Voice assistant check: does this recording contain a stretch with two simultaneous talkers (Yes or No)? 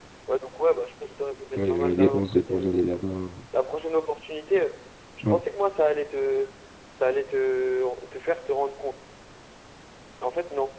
Yes